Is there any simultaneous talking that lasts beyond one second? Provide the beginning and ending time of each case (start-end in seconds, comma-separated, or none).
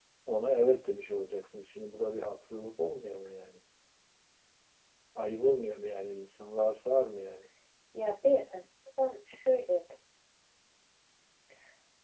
none